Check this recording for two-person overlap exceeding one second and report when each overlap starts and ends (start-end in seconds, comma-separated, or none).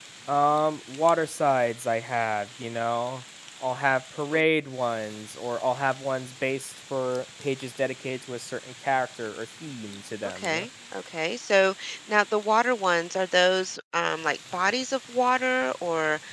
none